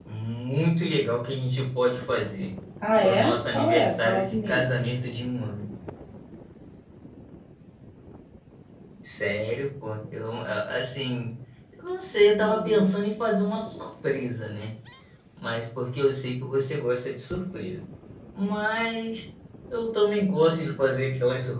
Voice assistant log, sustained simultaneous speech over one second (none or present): present